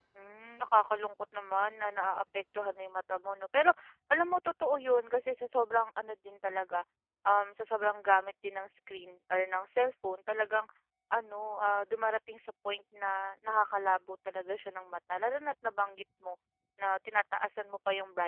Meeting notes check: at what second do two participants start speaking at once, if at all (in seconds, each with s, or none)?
none